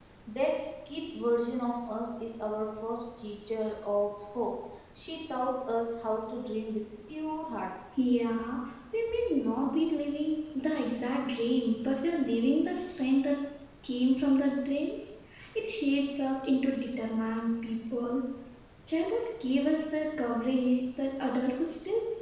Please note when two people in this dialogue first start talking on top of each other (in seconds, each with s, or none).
none